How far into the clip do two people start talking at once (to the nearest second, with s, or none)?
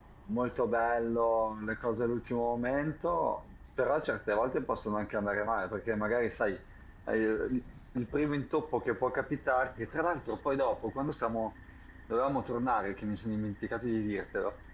none